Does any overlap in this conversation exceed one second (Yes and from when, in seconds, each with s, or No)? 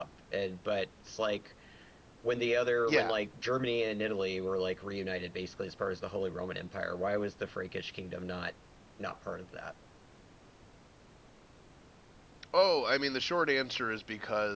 No